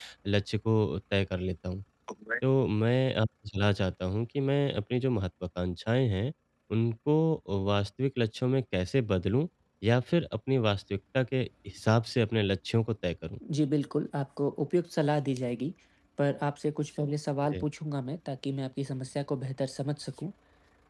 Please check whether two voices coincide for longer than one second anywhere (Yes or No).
No